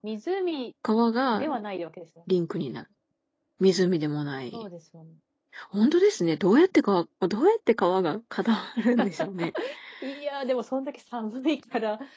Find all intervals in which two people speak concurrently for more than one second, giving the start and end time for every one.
none

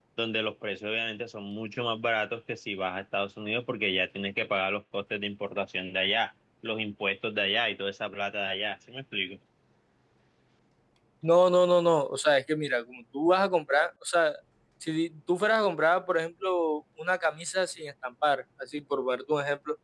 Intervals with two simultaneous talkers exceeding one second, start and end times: none

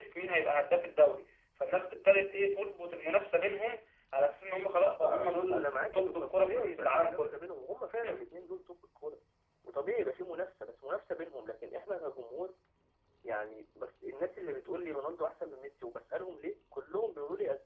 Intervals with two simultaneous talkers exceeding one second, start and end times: 4.8-7.5

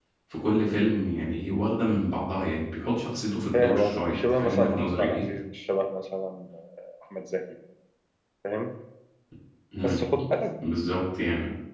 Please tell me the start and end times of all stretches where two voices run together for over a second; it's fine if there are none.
3.5-5.3

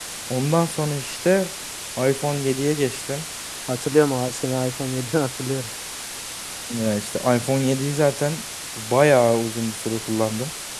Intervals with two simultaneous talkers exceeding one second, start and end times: none

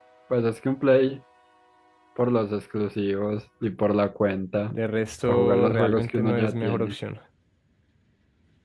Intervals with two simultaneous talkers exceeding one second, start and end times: 5.2-7.0

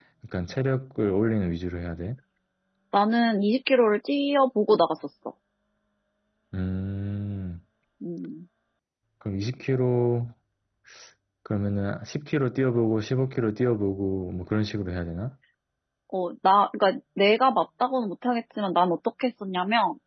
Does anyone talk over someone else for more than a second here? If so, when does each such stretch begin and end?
none

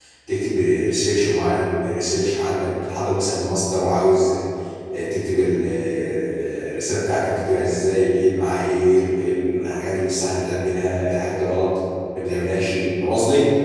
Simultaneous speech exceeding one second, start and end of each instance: none

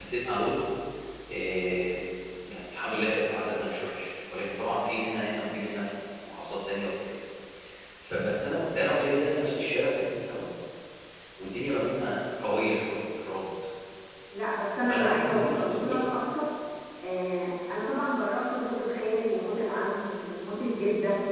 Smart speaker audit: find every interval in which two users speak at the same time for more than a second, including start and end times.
14.8-16.1

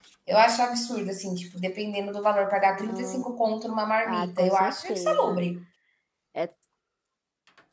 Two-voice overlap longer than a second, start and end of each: 4.0-5.4

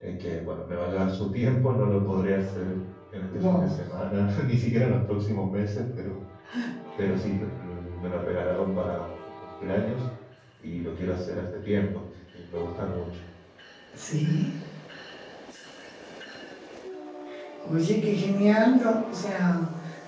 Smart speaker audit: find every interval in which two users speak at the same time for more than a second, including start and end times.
none

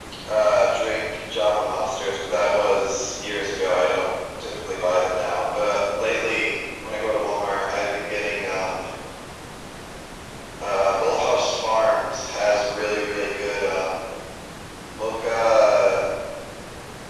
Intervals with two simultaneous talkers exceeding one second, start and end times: none

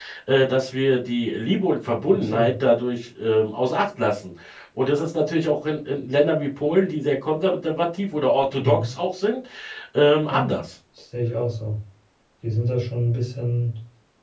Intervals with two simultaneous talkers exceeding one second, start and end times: none

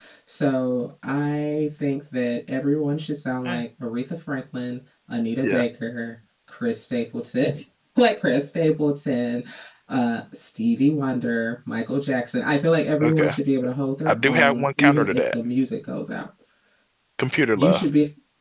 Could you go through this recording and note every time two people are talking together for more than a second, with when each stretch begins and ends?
14.1-15.3

